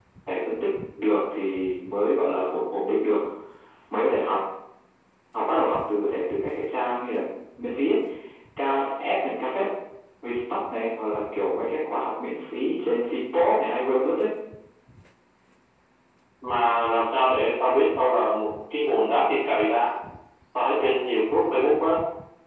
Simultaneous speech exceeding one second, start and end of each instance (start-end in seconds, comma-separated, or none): none